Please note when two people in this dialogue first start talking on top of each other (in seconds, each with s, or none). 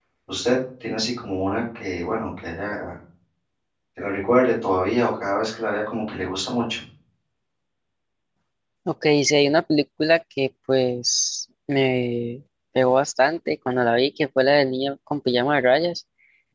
none